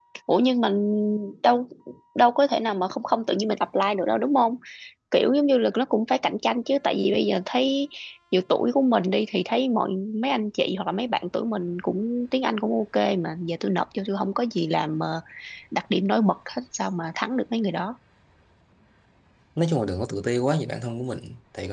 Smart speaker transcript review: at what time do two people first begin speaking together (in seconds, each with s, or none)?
none